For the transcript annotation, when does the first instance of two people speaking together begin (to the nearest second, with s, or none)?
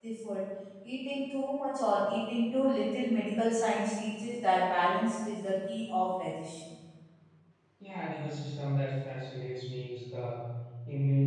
none